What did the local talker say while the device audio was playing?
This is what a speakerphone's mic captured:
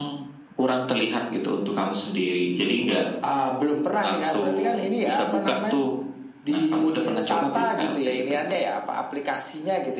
none

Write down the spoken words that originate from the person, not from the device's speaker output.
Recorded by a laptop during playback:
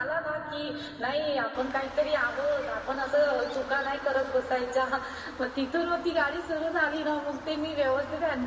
none

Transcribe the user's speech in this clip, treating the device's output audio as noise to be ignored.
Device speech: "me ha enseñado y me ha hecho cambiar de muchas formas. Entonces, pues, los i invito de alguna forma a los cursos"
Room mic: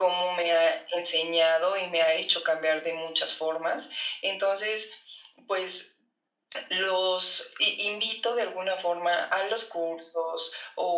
none

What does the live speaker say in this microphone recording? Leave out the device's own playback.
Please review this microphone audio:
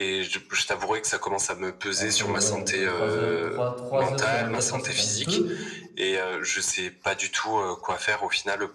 entre, heu, ouais, entre 3 heures, trois trois heures sur 24 heures, c'est quand même peu,

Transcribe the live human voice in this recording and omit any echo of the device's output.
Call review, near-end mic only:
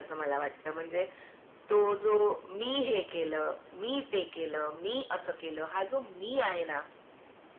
none

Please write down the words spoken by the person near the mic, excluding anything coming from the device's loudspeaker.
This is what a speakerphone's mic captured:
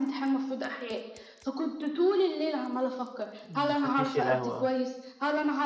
ما خدتيش القهوة،

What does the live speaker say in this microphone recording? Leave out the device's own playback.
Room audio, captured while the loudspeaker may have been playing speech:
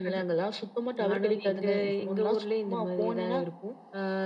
none

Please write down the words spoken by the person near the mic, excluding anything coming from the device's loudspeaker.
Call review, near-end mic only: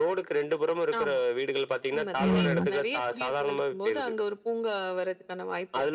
ம்.

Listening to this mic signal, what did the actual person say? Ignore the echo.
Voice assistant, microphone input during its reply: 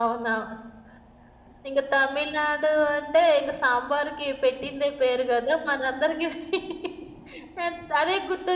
none

